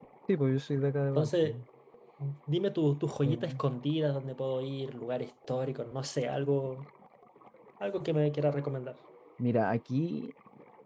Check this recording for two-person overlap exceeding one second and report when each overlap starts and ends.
none

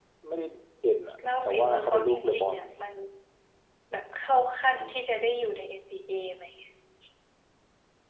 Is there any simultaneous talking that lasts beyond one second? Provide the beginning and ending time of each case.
1.4-2.7

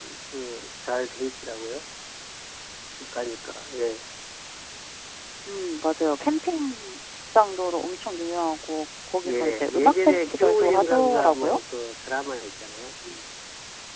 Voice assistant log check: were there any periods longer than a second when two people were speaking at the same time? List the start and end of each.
9.2-11.6

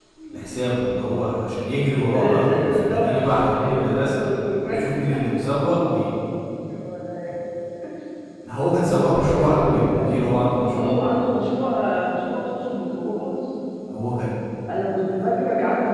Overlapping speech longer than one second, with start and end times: 2.1-4.2, 8.8-10.3

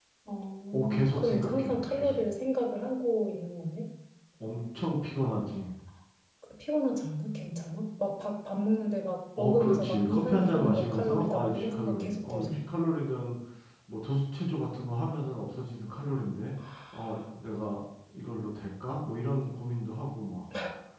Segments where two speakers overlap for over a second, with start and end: 0.7-2.2, 9.4-12.6

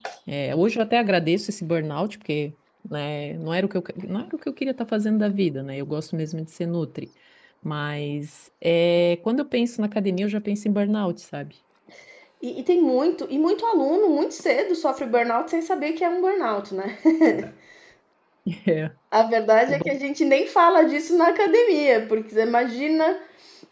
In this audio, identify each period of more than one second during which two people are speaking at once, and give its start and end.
none

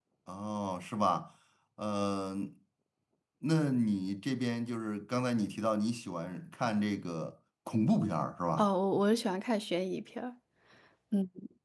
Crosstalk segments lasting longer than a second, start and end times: none

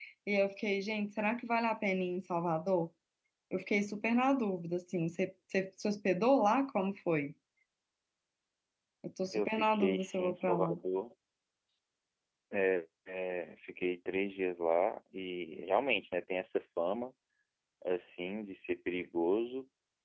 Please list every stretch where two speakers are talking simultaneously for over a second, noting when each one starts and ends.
9.3-10.8

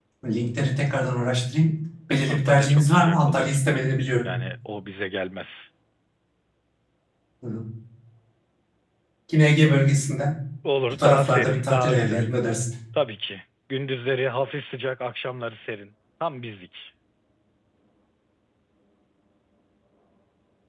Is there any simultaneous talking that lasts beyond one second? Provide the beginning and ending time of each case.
2.3-3.6, 10.9-12.3

